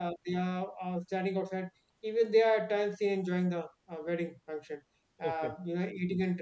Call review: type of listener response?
listening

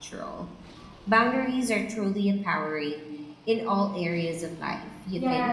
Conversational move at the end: taking over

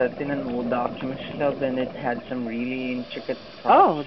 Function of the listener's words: taking over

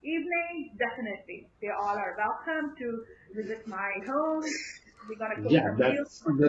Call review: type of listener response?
taking over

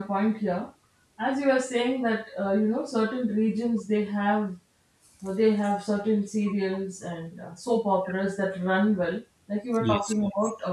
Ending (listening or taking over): listening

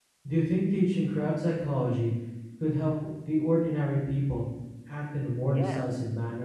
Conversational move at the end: taking over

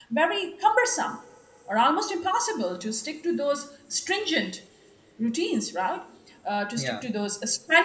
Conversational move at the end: listening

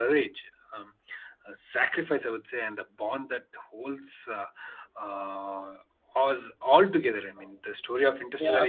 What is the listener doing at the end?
taking over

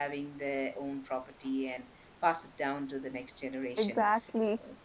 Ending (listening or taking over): listening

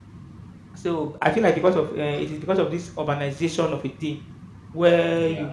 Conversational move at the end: listening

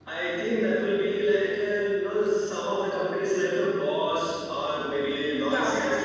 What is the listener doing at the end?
taking over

